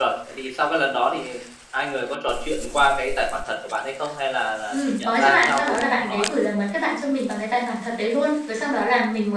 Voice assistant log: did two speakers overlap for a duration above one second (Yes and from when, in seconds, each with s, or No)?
Yes, from 4.7 s